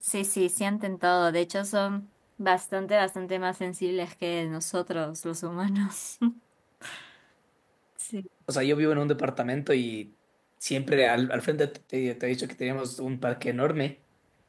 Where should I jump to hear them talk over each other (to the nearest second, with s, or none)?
none